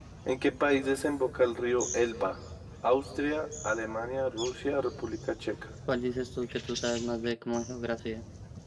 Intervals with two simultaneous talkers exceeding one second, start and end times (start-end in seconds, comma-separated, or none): none